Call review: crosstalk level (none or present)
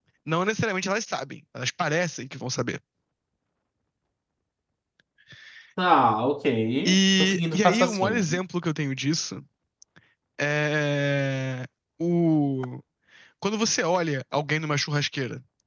present